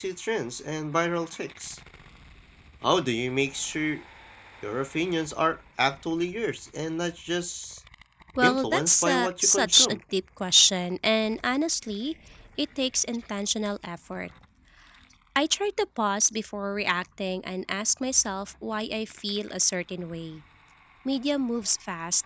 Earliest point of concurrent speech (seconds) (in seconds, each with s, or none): 8.4 s